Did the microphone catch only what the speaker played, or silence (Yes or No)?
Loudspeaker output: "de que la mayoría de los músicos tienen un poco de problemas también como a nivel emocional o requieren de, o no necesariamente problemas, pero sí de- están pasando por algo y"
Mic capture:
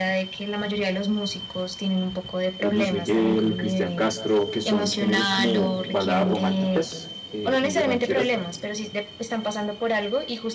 No